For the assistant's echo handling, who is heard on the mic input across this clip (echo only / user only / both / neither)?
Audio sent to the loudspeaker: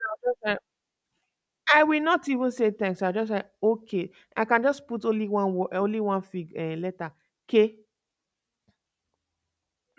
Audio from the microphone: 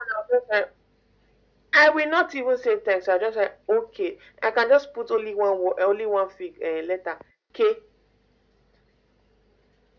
echo only